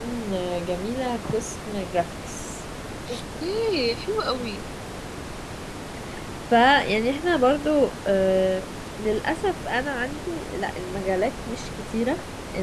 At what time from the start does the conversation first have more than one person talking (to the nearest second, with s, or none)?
none